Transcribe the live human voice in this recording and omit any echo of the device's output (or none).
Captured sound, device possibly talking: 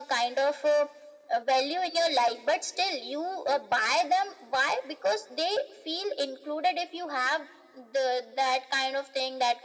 none